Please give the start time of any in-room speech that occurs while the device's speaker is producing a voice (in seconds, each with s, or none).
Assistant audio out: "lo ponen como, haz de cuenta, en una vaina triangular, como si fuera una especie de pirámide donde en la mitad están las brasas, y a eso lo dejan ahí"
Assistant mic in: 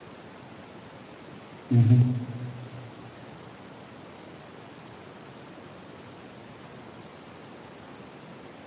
1.7 s